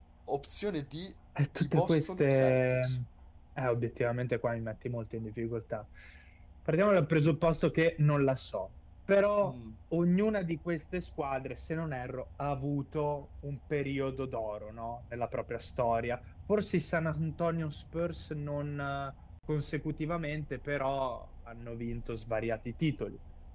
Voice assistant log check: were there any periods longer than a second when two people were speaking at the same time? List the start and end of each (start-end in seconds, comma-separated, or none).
1.6-2.8